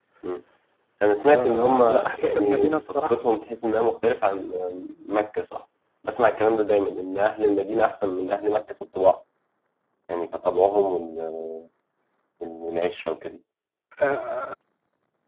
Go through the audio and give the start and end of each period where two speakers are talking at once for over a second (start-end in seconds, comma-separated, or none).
1.2-3.2